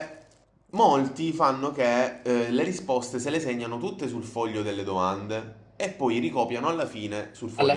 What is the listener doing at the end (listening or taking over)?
taking over